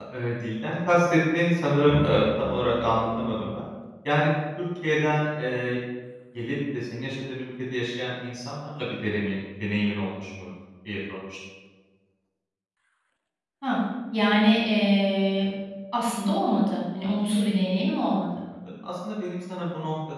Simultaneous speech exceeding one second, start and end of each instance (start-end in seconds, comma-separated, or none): none